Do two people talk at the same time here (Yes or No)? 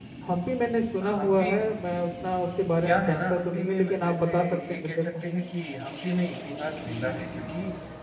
Yes